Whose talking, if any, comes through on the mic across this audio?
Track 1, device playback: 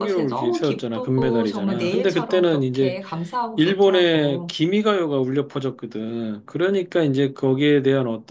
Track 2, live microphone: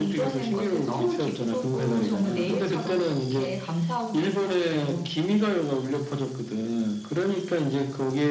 echo only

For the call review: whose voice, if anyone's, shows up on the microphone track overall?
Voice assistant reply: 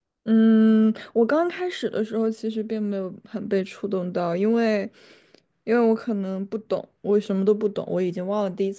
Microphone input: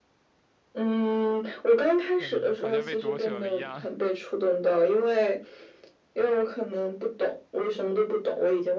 both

